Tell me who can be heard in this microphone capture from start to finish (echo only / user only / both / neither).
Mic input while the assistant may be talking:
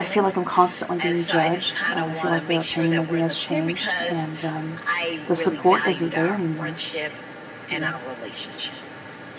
both